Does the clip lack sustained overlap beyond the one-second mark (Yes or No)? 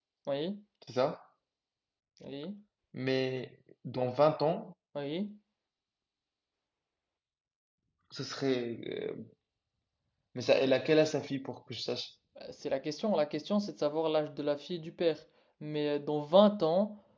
Yes